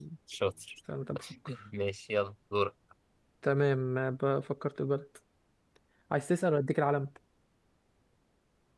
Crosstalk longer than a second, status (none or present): none